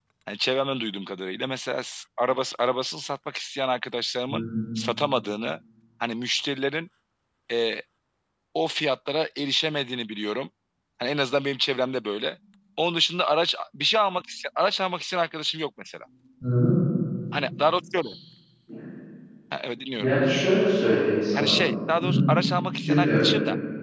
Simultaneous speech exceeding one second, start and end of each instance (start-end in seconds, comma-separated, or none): none